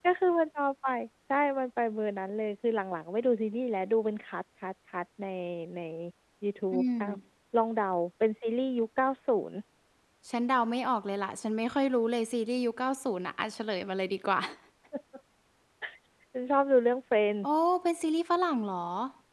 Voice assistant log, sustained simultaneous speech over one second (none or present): none